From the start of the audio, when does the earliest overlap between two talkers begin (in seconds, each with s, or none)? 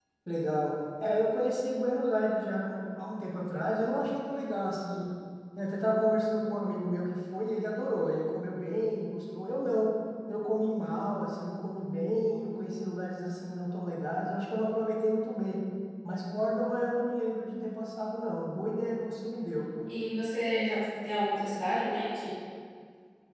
none